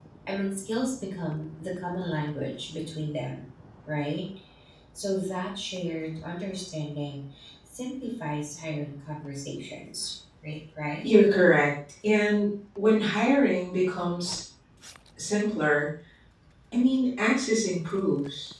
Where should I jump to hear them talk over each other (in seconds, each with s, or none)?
none